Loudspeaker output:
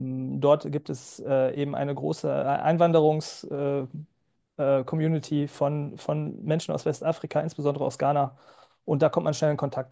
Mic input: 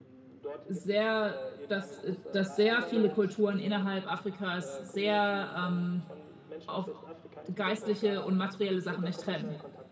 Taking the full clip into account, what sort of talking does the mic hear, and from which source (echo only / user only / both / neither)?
both